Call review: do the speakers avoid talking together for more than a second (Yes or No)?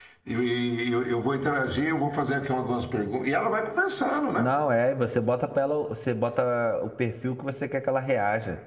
Yes